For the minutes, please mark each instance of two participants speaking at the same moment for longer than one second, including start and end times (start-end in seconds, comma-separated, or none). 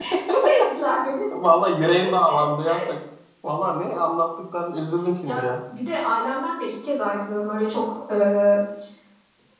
none